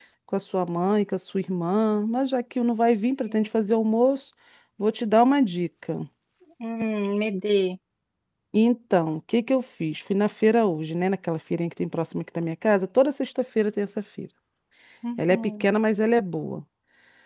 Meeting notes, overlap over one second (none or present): none